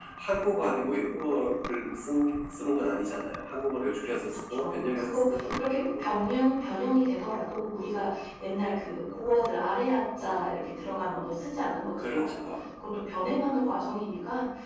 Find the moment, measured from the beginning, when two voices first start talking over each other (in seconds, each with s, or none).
4.5 s